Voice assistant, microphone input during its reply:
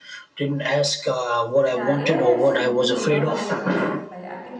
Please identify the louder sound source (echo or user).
echo